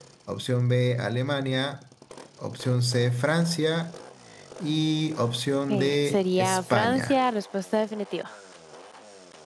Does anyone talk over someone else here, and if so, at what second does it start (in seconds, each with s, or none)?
5.7 s